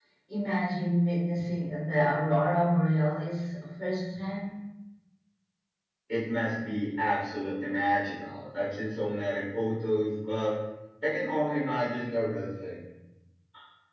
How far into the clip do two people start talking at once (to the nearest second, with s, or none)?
none